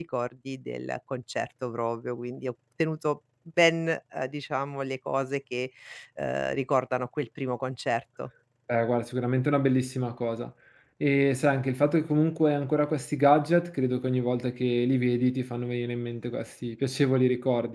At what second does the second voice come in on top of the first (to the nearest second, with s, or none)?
none